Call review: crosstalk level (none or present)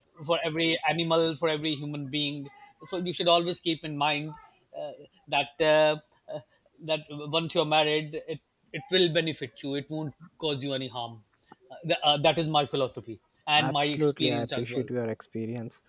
present